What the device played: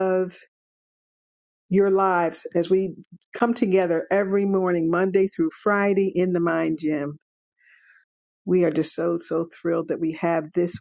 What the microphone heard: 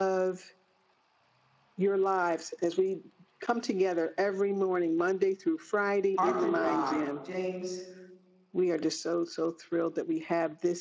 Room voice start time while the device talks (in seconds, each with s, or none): 6.2 s